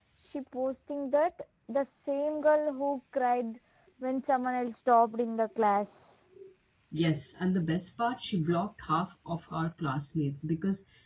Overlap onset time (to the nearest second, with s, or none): none